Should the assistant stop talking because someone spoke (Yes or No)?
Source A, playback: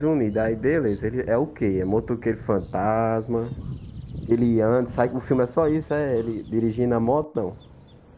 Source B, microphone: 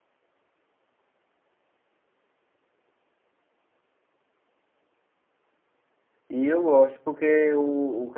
Yes